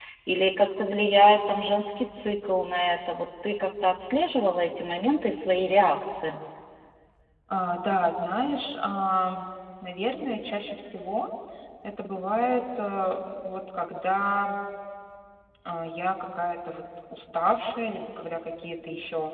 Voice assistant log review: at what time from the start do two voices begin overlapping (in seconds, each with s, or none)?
none